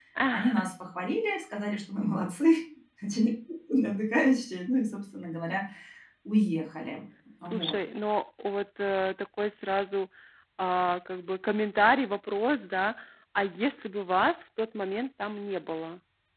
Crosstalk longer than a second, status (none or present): none